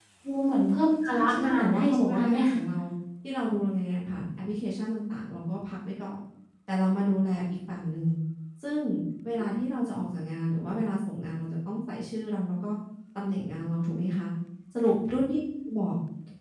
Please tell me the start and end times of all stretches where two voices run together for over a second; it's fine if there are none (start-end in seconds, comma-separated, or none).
1.1-2.4